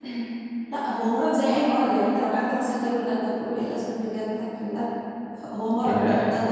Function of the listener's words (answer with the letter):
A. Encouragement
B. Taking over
A